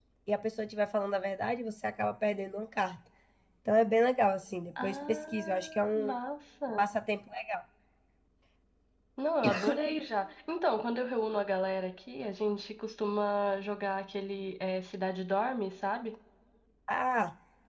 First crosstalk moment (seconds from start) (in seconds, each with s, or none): 4.8 s